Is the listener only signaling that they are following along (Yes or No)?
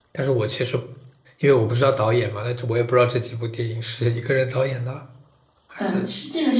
No